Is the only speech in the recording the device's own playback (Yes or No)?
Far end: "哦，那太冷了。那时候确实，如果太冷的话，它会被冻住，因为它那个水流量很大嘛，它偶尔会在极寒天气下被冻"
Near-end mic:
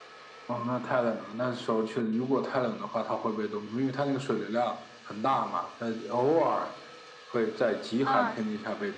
No